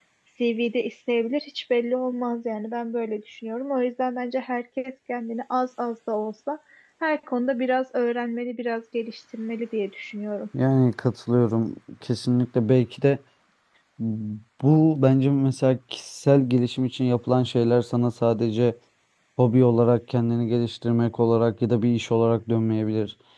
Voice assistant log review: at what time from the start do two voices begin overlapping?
none

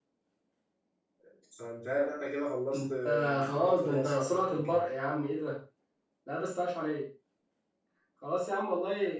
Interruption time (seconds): 2.7 s

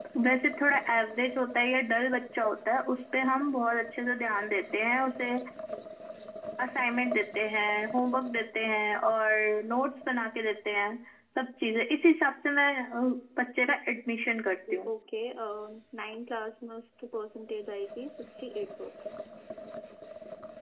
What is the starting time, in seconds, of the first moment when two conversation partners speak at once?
none

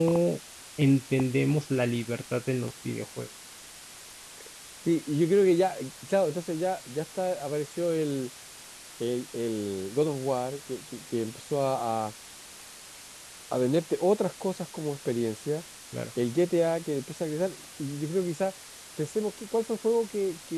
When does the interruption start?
none

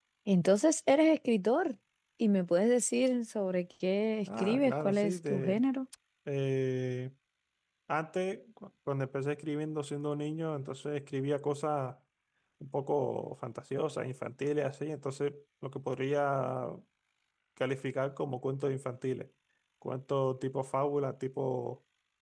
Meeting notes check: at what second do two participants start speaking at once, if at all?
4.3 s

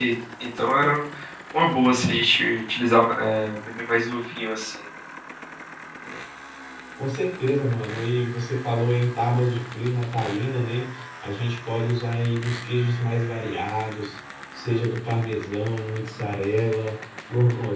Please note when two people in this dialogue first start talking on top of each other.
none

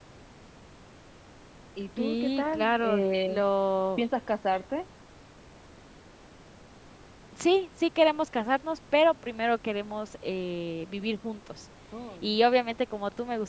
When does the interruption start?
2.0 s

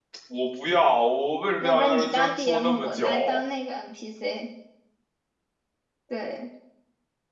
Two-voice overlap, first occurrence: 1.6 s

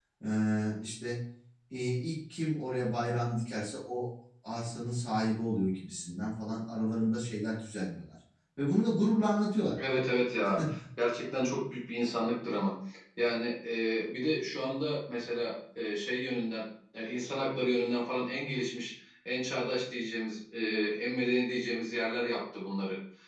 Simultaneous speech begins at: none

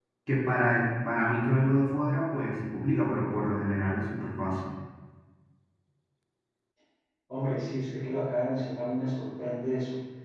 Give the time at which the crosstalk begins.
none

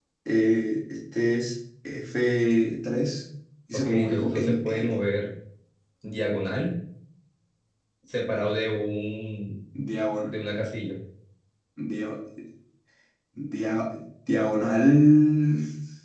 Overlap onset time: 3.7 s

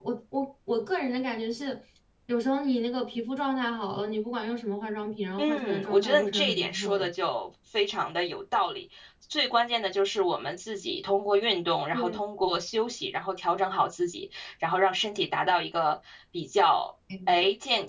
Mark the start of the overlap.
5.4 s

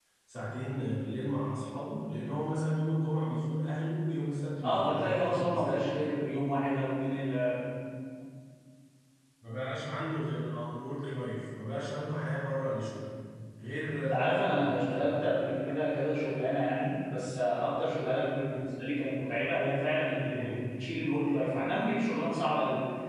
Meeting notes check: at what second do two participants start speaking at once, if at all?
4.6 s

